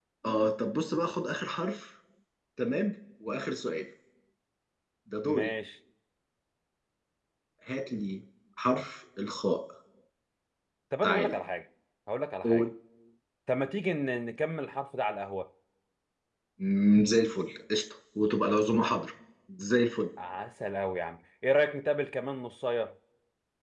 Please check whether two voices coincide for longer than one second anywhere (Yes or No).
No